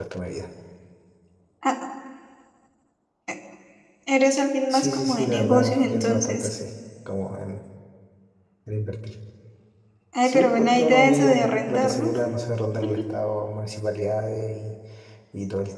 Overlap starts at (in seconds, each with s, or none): 4.7 s